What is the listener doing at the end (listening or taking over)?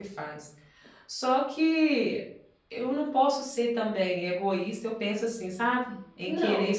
listening